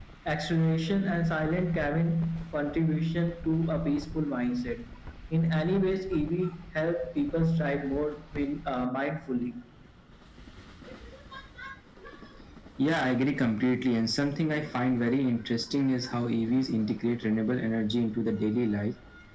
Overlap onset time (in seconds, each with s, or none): none